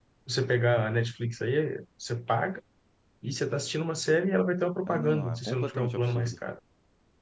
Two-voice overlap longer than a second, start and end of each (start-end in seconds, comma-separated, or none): 4.9-6.3